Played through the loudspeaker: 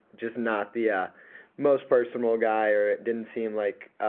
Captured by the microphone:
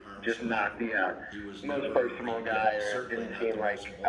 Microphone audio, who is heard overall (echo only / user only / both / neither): both